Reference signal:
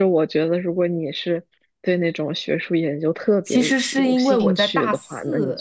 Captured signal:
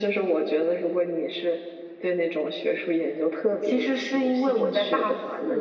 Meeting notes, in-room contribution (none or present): none